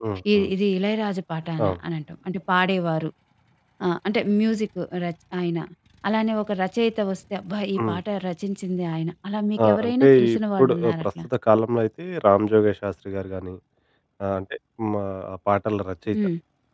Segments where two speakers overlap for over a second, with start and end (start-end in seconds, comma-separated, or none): 9.6-11.2